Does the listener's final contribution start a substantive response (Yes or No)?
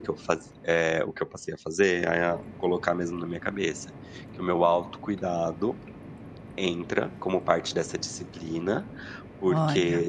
No